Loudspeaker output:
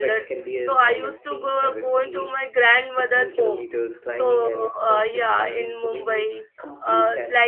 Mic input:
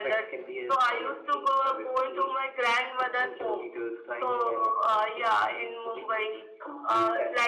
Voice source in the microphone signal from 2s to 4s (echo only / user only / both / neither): echo only